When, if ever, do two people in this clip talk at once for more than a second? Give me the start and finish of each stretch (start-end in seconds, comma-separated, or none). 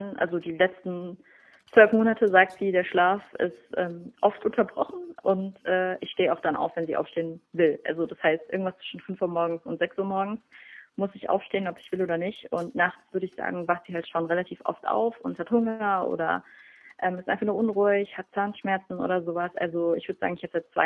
none